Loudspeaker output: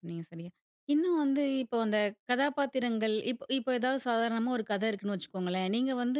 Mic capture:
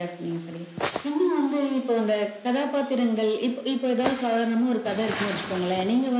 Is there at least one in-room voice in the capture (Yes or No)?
No